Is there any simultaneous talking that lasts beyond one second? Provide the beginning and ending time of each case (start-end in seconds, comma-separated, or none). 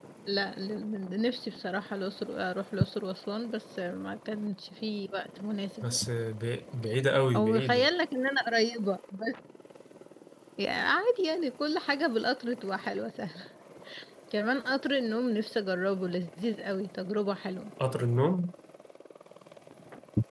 none